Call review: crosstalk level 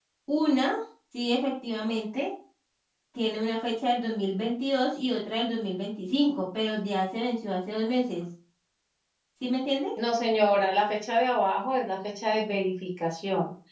none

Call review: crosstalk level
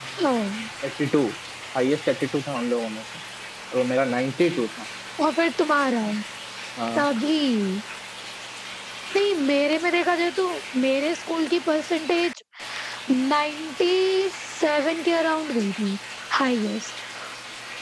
none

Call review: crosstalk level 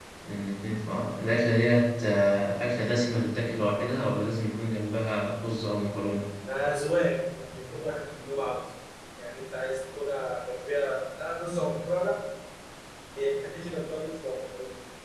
none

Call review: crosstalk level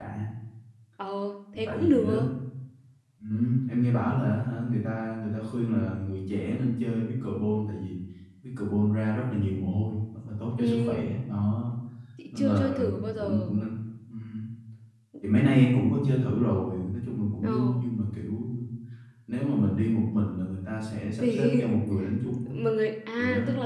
present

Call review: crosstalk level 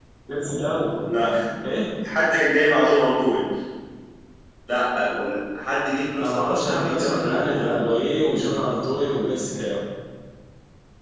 present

